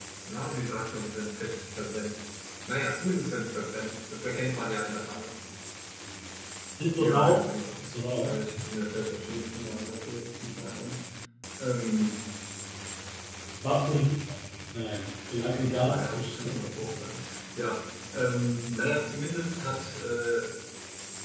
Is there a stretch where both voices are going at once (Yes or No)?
Yes